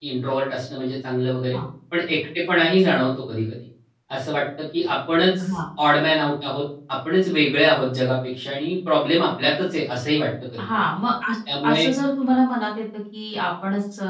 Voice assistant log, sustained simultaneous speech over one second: none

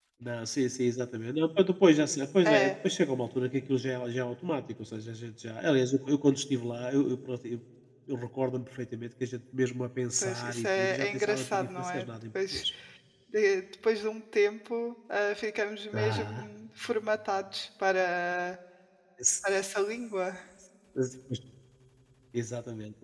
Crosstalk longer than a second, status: present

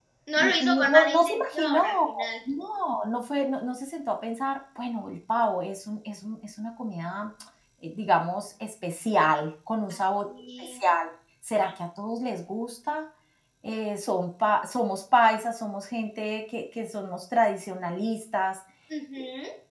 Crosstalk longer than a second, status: present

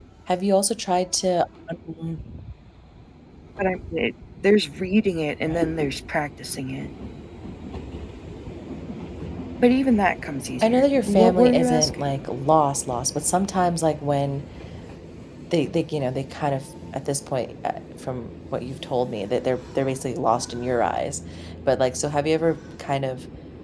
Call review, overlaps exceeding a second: present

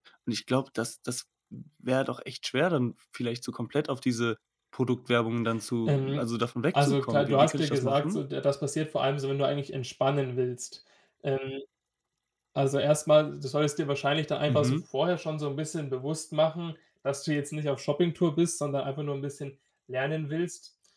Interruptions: present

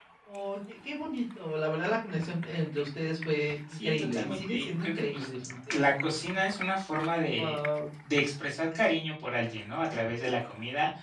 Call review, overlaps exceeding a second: present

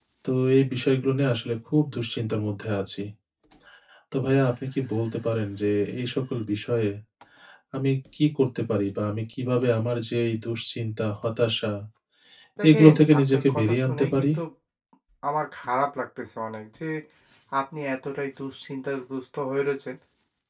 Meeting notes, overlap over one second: present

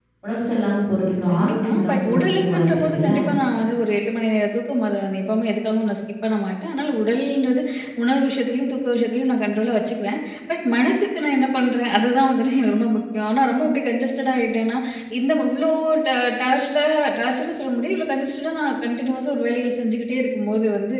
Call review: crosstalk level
present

